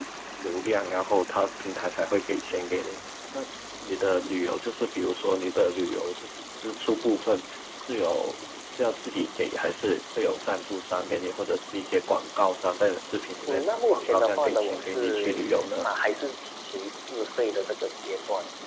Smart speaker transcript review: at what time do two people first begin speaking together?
13.5 s

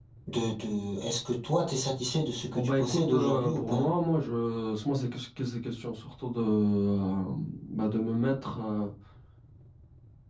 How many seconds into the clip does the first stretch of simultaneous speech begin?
2.5 s

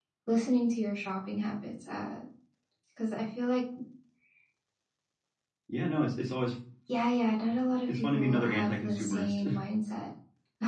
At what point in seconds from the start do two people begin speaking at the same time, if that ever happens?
7.9 s

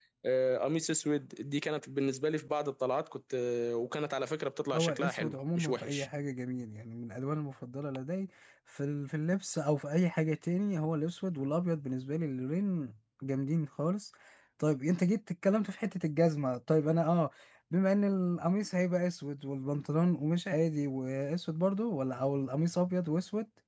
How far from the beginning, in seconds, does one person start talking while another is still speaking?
4.7 s

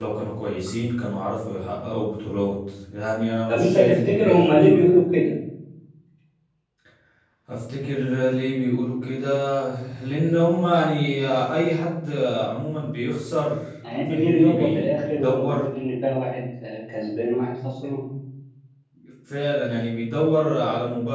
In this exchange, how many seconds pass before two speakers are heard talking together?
3.5 s

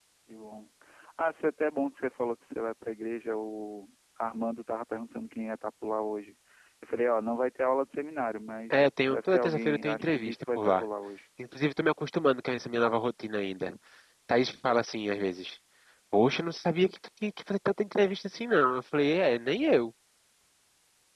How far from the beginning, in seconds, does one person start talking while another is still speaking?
8.7 s

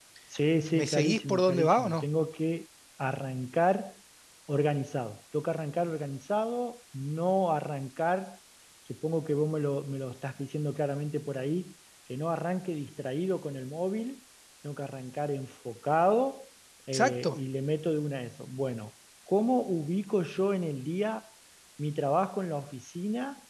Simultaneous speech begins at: 0.7 s

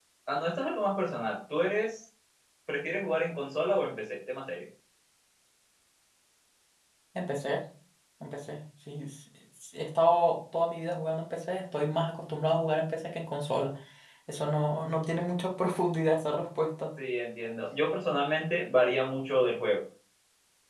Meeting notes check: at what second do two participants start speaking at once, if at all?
none

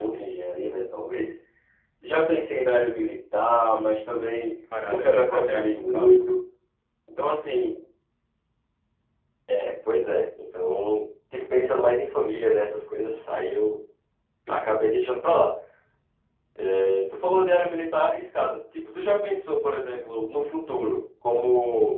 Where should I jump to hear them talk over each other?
4.7 s

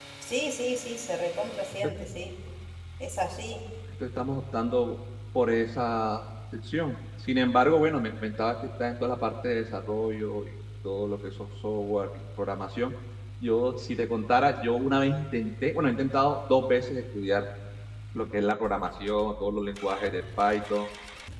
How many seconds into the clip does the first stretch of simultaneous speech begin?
none

